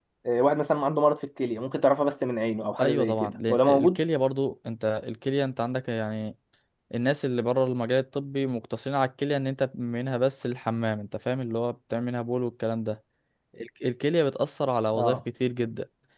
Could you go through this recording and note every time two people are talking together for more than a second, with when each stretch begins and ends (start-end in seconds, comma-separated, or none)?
2.8-4.0